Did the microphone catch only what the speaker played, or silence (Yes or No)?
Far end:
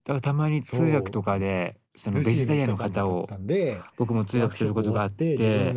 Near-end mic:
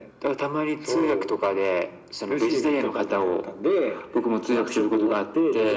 Yes